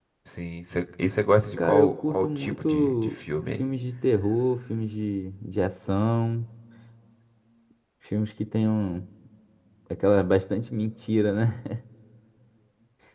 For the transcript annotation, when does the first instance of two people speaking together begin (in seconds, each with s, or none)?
1.6 s